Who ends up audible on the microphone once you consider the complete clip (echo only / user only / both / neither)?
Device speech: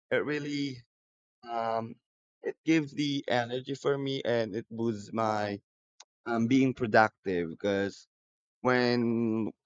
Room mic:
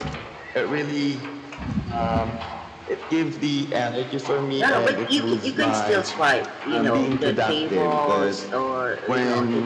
both